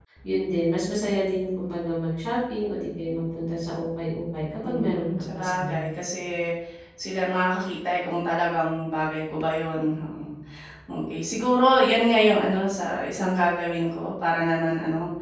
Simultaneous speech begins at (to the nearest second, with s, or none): 5 s